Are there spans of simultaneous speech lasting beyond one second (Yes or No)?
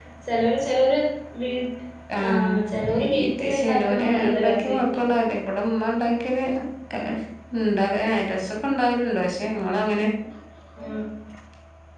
Yes